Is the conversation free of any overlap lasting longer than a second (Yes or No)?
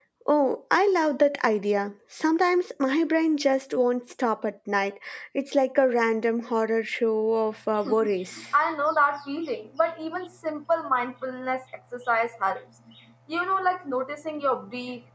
Yes